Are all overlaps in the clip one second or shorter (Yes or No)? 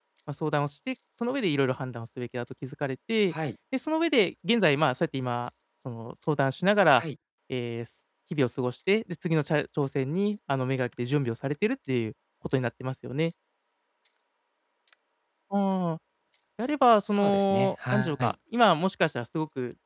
No